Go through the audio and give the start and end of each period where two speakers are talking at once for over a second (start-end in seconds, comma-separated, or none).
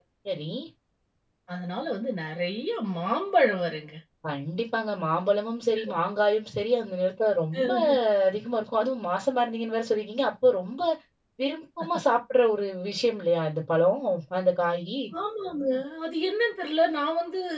none